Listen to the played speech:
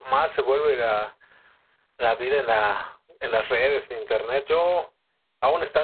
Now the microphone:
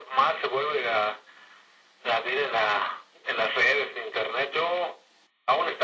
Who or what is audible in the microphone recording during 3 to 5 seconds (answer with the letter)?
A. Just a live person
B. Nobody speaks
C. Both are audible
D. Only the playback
D